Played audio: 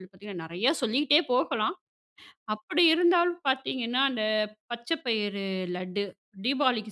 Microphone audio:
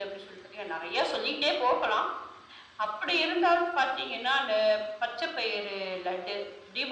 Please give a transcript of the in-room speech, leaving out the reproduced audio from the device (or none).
none